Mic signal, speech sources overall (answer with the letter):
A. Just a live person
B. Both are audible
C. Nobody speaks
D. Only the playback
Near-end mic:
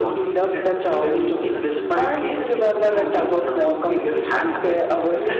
B